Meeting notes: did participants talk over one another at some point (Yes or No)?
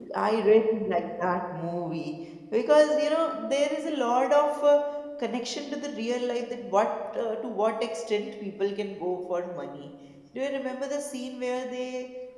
No